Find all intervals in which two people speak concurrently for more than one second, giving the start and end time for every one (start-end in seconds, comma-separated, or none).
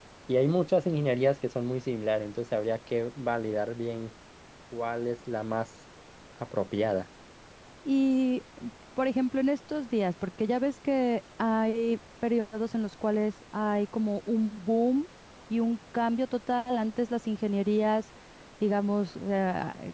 none